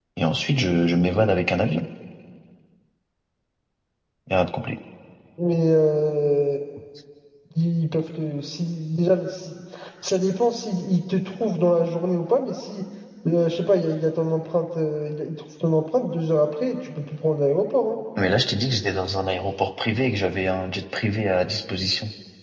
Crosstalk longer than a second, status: none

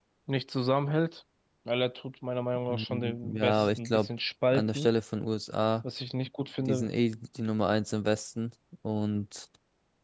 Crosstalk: present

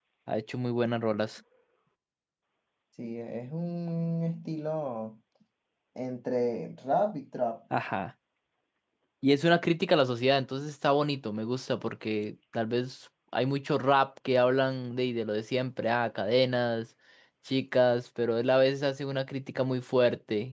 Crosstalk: none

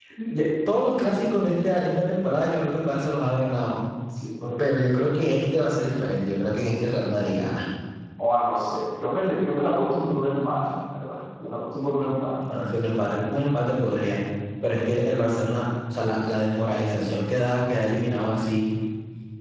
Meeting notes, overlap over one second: none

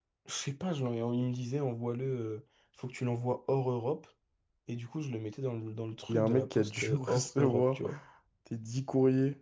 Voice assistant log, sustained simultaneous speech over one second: present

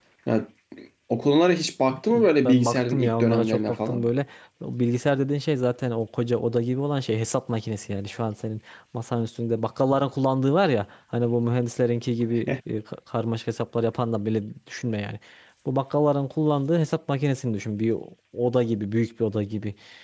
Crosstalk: present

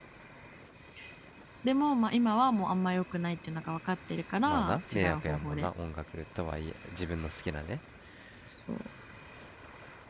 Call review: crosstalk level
present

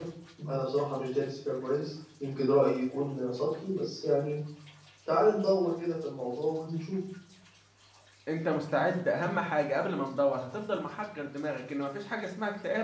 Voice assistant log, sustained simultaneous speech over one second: none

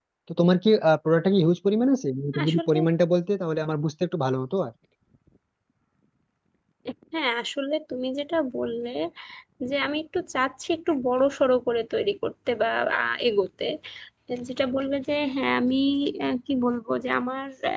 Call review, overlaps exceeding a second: none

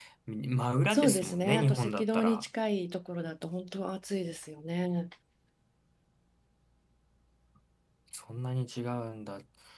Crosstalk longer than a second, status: present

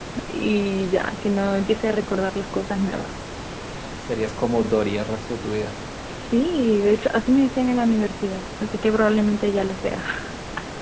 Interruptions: none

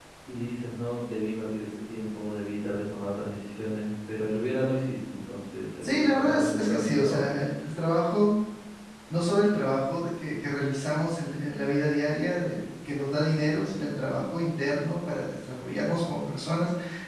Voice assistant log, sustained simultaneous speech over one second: present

